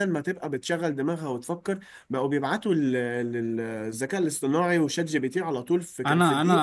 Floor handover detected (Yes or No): Yes